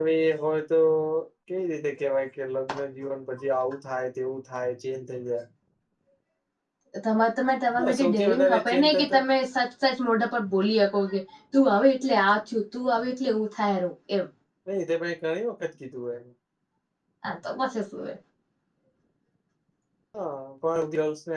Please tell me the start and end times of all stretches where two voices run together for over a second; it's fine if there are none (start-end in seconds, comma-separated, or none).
7.8-9.2